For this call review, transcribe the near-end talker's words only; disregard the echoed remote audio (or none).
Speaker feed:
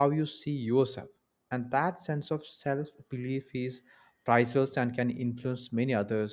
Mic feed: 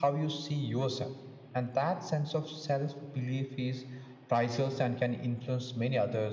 none